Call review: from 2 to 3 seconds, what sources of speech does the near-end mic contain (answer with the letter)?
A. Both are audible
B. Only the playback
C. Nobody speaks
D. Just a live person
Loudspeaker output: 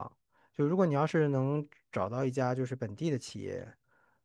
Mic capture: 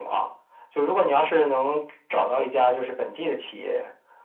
B